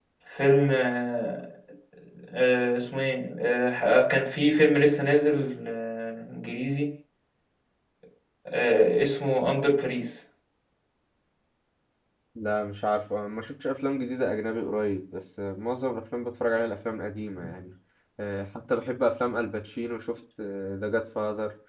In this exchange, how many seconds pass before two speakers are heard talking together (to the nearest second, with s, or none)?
none